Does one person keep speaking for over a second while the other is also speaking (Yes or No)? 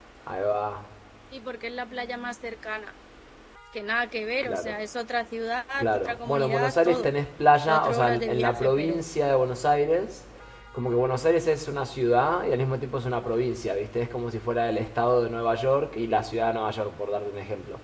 Yes